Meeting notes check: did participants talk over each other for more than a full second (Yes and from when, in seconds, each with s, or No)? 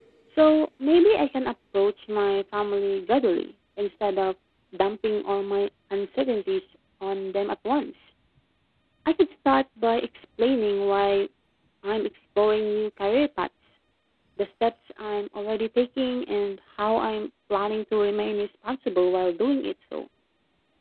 No